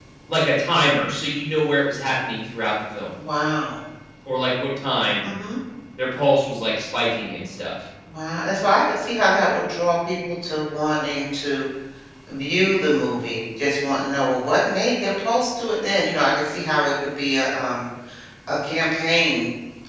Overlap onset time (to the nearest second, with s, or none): none